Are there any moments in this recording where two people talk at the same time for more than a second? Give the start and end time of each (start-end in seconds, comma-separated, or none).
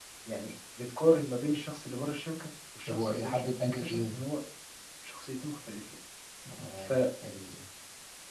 2.9-4.2